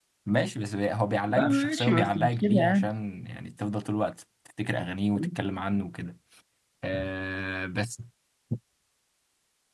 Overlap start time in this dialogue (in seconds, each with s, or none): 1.3 s